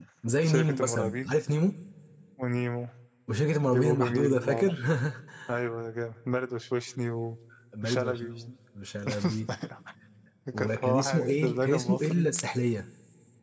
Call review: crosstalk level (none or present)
present